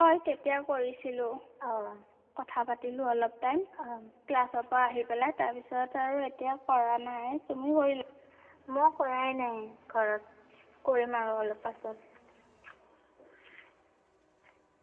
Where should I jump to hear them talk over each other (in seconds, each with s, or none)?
none